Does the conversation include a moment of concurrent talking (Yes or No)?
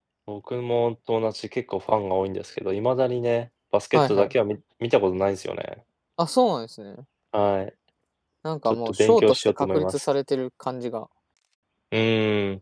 Yes